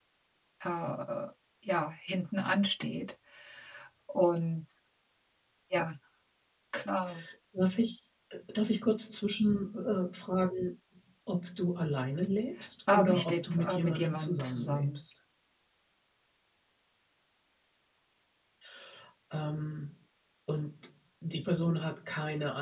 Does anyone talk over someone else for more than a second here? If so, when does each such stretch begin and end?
12.9-15.0

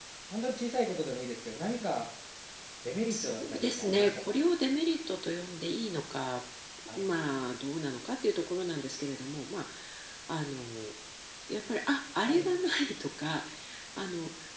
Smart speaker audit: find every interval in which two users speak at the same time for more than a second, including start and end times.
3.1-4.4

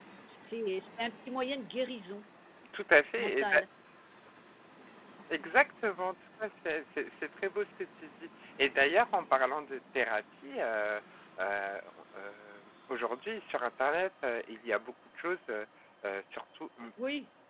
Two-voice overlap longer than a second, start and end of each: none

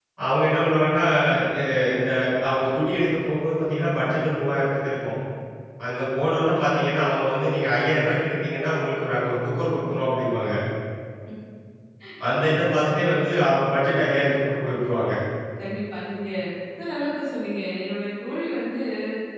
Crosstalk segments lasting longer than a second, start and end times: none

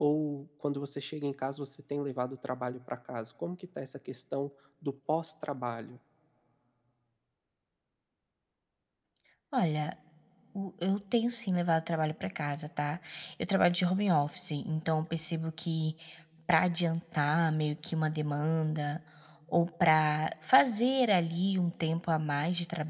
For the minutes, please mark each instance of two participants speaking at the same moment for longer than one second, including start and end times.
none

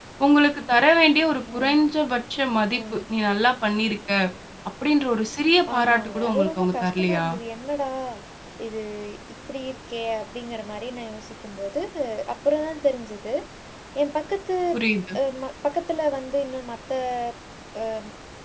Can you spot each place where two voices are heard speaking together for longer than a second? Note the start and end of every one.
5.8-7.2

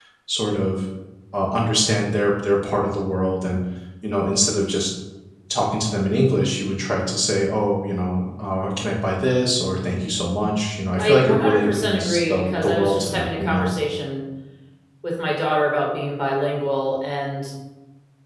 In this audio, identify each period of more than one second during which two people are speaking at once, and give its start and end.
11.0-13.7

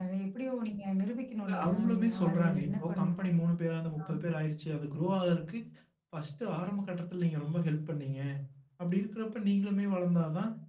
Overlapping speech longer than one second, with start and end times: 1.5-3.3

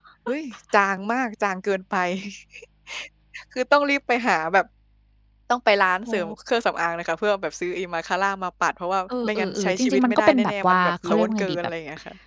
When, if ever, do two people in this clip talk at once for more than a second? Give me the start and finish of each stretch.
9.2-11.7

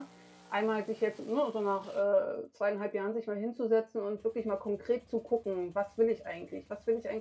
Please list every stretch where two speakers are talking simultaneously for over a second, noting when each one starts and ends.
none

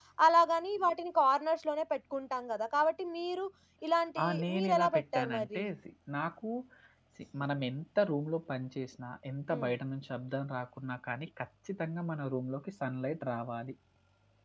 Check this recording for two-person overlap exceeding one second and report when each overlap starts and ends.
4.2-5.6

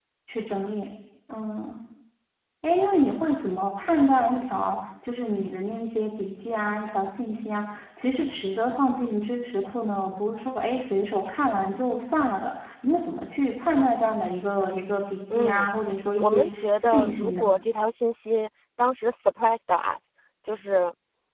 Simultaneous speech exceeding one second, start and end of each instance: 16.2-17.5

